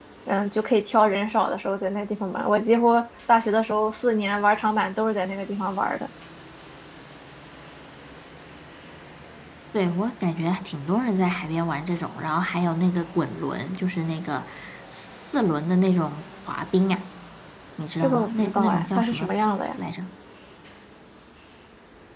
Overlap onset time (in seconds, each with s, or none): 18.0 s